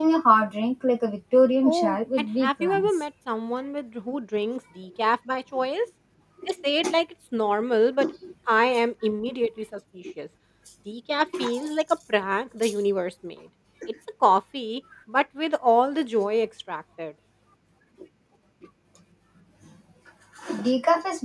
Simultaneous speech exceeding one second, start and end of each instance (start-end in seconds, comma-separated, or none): 1.6-2.9